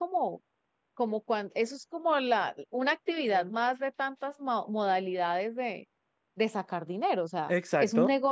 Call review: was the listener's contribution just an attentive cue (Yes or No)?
Yes